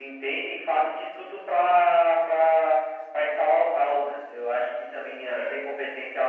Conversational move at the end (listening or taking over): listening